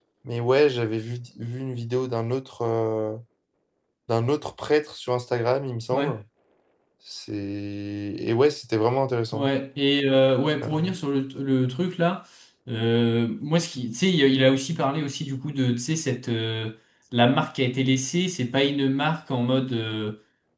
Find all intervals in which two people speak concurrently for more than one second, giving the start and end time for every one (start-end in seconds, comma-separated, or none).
none